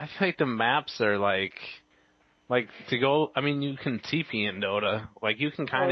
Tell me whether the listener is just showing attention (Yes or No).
No